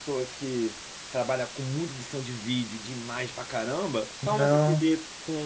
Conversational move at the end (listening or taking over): listening